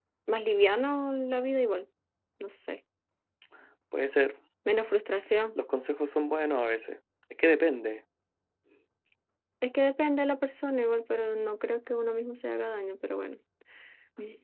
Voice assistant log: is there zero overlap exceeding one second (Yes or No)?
Yes